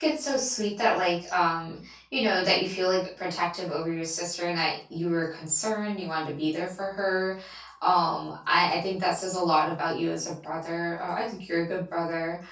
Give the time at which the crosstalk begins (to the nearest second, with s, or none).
none